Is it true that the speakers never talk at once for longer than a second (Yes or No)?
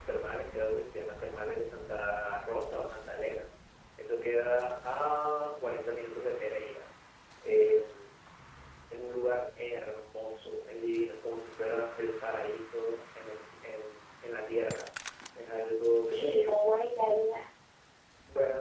Yes